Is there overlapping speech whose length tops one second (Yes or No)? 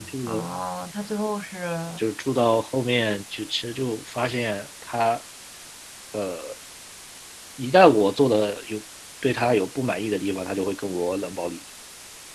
No